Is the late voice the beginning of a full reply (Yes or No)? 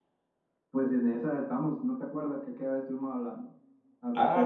Yes